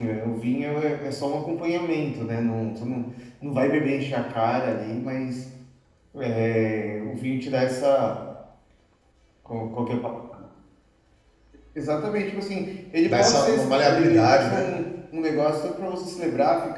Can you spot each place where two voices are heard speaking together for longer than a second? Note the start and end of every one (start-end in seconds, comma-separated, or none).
13.0-14.7